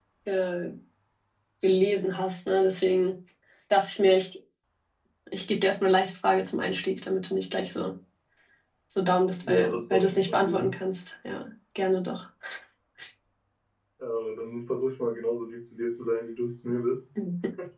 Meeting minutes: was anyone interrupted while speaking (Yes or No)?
Yes